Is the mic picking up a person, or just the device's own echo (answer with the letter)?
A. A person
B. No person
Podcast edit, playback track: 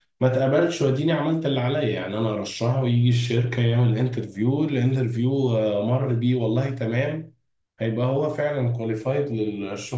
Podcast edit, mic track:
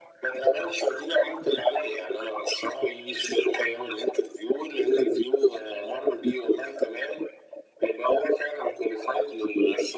B